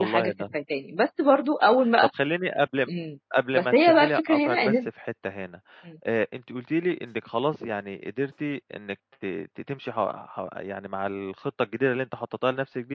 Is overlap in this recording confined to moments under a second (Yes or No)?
No